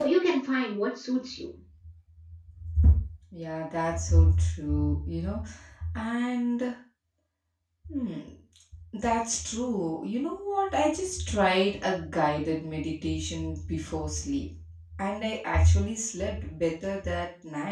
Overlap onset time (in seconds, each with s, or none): none